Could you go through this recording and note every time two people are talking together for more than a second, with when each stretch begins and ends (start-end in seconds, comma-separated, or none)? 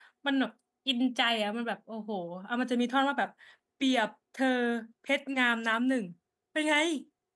none